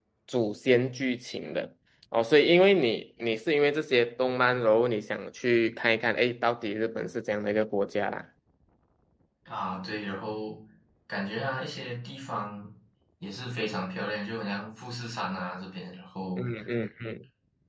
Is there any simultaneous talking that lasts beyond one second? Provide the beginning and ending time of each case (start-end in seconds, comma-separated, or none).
none